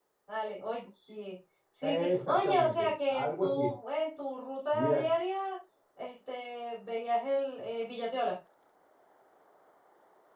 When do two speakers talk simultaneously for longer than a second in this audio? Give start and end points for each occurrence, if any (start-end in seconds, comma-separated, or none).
2.1-3.7